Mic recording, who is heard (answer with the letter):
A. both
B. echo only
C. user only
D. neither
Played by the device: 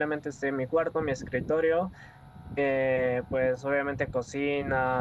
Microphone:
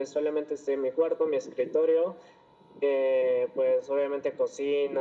B